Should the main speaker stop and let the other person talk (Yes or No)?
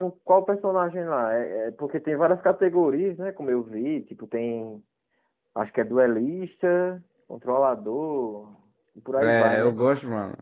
Yes